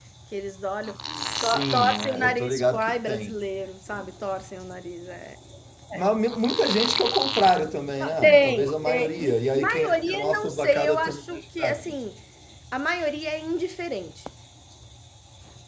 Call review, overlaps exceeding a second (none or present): present